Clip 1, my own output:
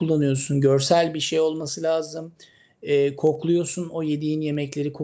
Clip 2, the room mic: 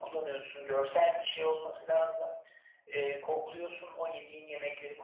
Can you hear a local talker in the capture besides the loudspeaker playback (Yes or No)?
No